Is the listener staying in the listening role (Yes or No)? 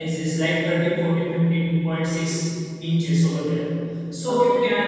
Yes